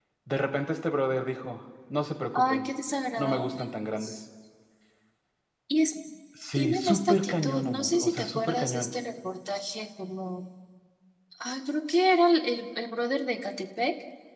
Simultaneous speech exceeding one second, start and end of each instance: 6.5-8.9

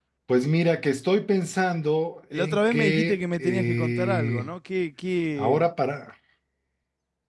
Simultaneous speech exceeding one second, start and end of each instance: 2.3-4.5

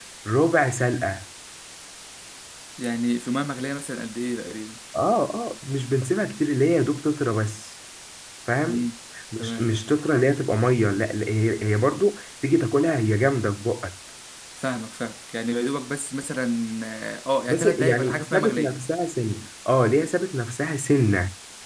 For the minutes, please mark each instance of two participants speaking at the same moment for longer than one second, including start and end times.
17.5-18.7

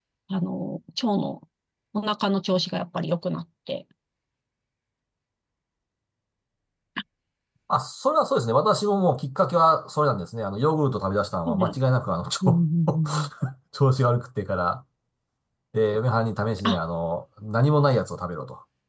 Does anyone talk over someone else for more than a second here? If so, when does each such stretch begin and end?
none

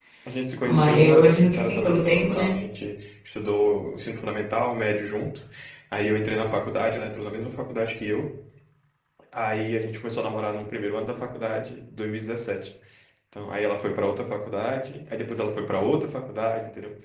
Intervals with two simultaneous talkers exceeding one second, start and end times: 0.7-2.5

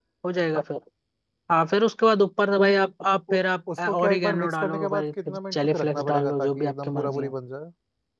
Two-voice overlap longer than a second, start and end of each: 3.8-7.3

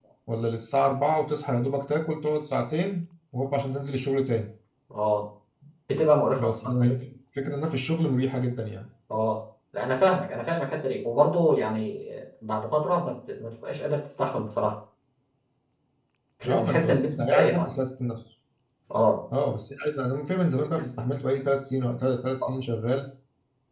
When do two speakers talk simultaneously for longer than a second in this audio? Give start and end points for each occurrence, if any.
16.5-17.7

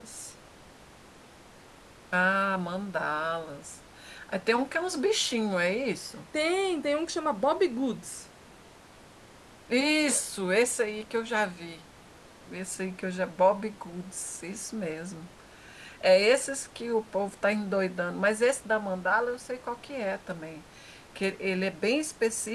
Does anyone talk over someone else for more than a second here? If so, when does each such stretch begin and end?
none

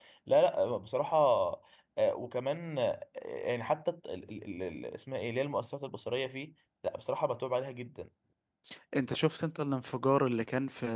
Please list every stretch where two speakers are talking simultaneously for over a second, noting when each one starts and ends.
none

